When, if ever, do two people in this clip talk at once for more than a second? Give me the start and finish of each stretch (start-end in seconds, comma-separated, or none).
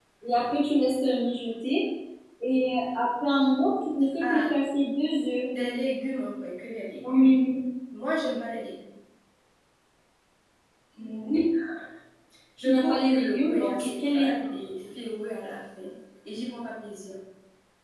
12.6-14.3